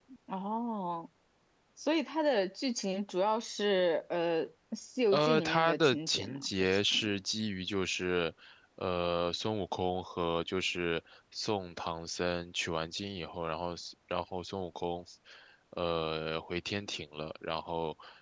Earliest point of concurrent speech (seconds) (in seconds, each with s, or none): 5.1 s